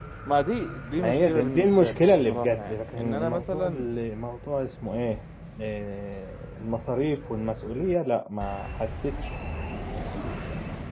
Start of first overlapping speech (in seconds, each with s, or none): 1.0 s